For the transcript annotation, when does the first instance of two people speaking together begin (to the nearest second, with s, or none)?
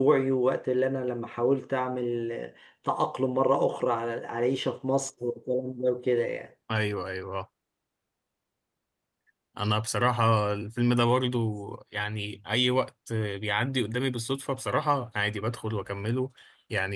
none